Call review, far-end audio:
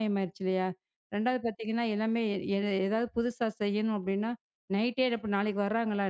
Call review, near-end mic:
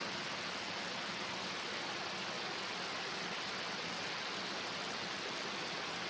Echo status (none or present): none